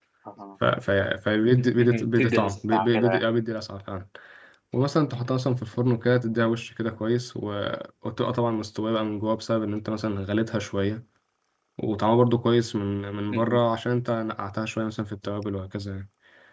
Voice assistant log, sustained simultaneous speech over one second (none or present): present